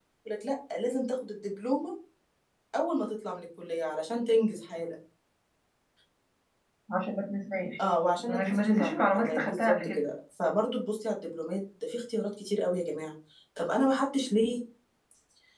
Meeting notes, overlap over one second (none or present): present